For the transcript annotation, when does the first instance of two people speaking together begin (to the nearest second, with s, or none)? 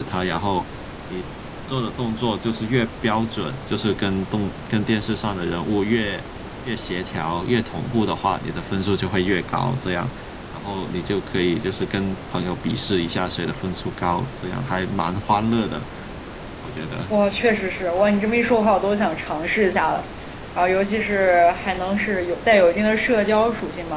none